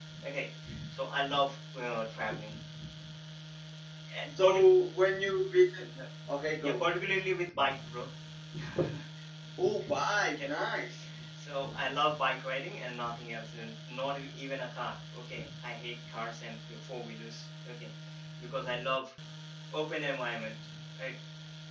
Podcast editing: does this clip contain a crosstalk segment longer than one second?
No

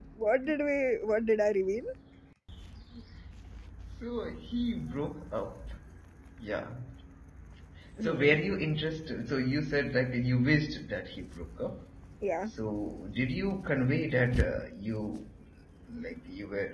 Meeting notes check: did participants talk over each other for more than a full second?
No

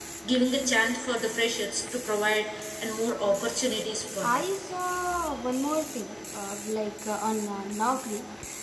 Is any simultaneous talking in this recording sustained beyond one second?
No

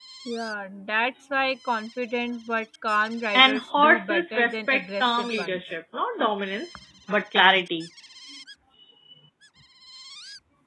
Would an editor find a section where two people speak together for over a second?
Yes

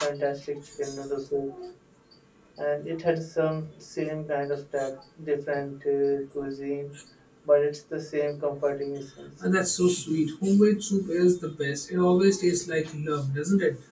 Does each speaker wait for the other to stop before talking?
Yes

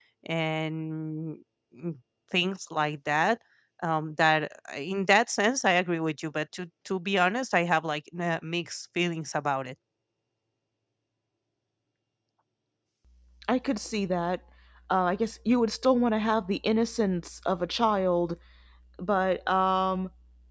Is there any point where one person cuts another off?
No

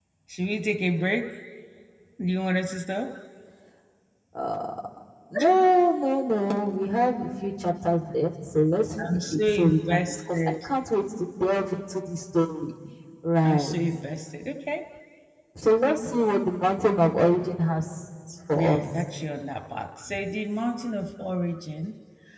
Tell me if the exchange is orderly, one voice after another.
No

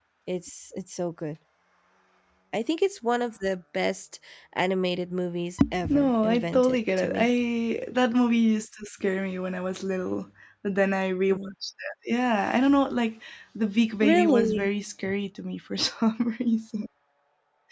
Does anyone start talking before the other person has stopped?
Yes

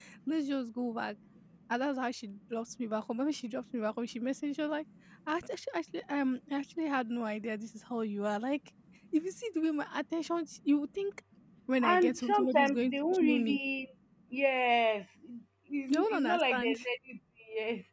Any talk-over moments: Yes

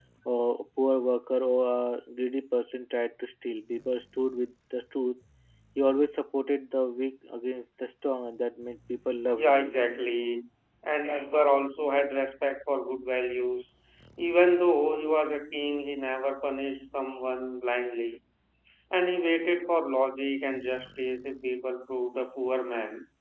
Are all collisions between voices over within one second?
Yes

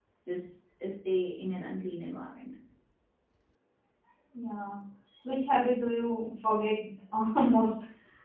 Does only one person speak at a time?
Yes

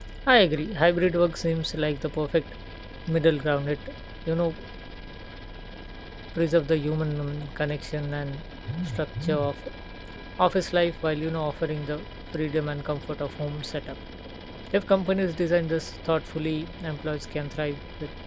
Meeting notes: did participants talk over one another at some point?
No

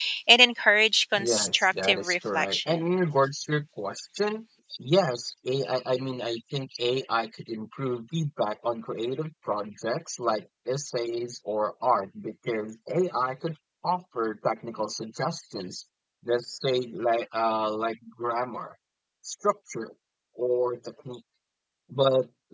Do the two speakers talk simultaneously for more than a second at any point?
Yes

